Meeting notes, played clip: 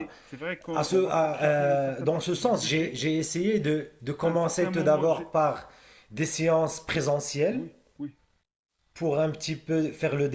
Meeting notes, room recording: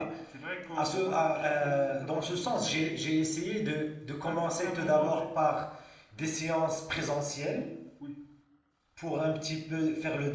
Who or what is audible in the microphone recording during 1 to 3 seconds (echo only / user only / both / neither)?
echo only